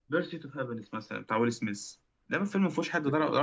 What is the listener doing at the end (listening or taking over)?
listening